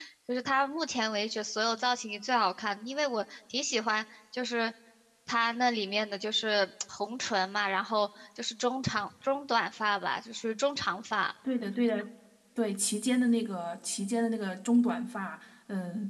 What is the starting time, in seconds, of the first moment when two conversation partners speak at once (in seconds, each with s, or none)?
none